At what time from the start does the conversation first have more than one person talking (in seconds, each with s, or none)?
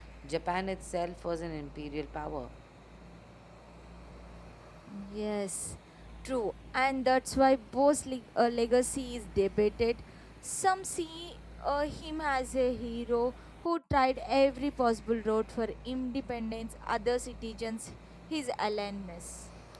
none